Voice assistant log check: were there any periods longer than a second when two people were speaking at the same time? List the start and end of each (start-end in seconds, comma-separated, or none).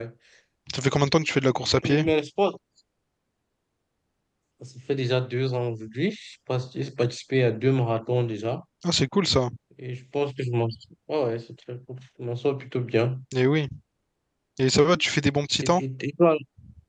none